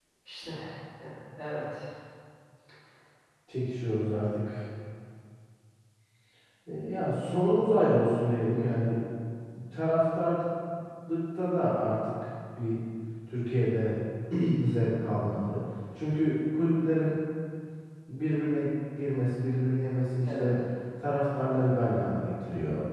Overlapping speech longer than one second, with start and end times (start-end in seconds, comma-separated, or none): none